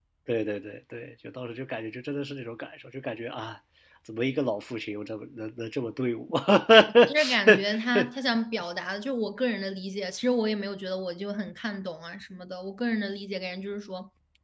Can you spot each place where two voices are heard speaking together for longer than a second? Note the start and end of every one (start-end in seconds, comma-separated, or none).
none